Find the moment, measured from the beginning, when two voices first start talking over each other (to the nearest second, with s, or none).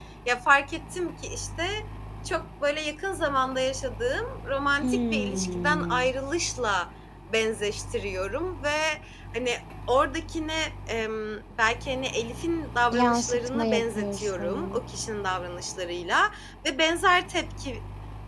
5 s